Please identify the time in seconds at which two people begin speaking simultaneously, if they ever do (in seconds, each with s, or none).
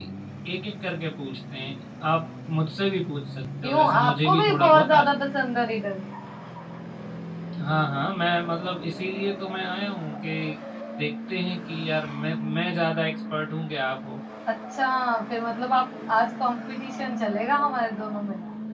3.6 s